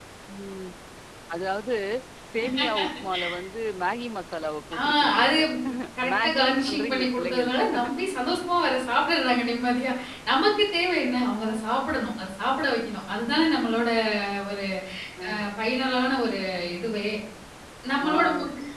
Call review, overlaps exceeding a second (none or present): present